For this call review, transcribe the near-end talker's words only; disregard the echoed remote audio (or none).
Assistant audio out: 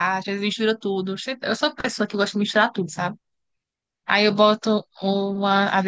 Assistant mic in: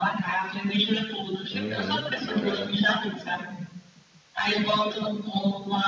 Uhum, morango.